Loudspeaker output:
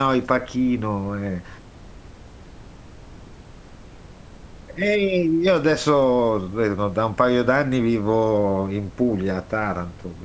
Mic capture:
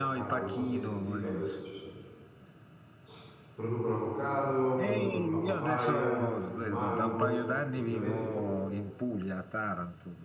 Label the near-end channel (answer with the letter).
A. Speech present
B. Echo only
A